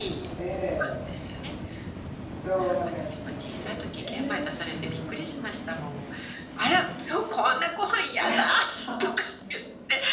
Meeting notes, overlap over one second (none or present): present